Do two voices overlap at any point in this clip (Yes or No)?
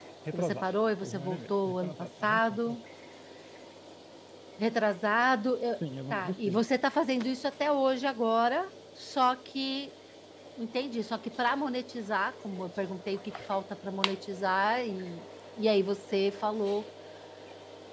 Yes